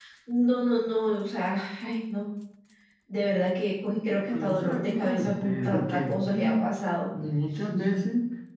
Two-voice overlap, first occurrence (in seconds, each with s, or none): 4.3 s